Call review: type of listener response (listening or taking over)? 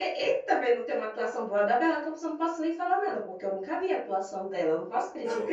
taking over